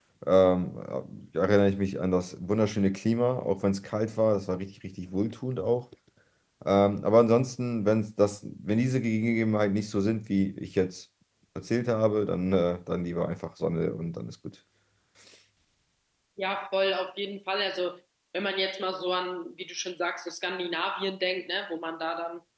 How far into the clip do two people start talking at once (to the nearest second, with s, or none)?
none